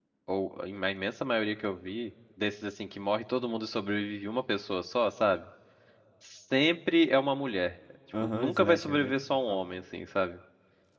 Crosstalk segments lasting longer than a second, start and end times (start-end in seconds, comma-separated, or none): 8.2-9.7